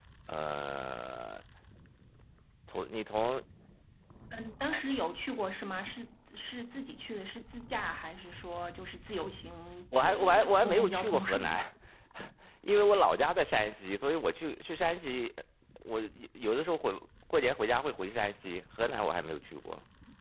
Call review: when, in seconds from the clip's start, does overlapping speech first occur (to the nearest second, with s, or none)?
10 s